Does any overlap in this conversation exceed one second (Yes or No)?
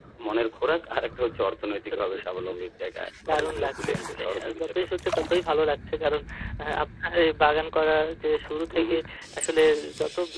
Yes